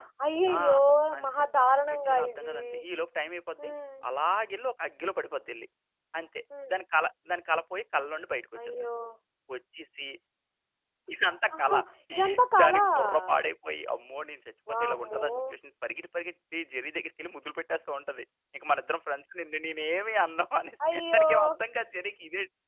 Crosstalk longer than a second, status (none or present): present